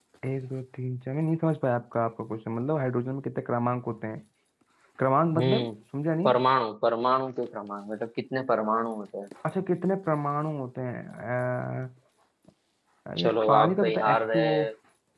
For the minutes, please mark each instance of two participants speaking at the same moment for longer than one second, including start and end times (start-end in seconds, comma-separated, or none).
13.2-14.6